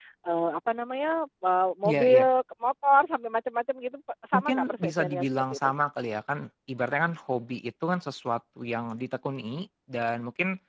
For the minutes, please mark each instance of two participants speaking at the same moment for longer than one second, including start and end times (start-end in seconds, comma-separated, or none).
4.3-5.7